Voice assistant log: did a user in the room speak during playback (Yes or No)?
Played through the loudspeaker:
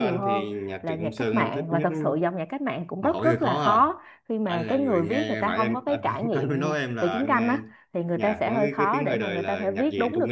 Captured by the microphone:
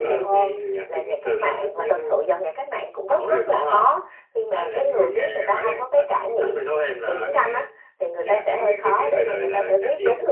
No